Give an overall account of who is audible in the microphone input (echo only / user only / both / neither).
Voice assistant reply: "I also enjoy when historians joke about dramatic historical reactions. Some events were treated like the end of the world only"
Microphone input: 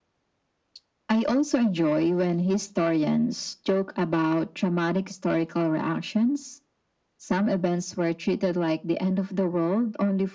echo only